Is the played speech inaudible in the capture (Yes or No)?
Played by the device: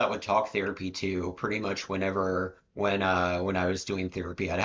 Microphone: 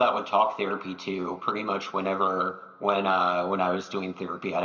No